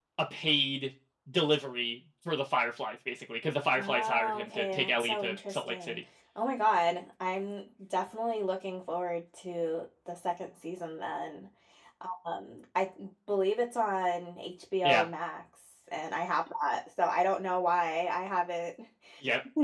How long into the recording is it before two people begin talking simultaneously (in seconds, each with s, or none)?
3.8 s